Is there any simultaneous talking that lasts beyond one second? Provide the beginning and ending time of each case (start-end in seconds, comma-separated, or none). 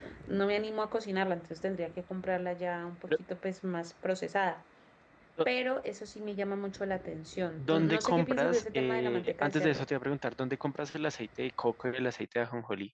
7.6-9.8